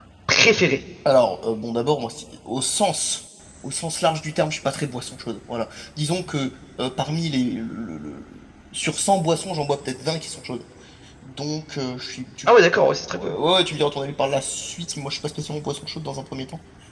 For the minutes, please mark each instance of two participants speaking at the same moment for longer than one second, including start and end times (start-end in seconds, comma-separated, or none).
none